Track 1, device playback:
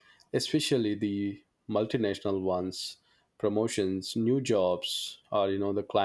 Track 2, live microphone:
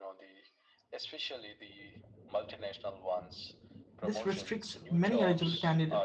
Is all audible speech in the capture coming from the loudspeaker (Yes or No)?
No